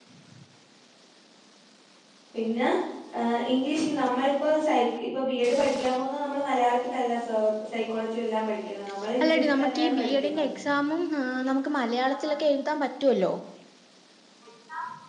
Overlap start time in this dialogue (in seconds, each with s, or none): 9.2 s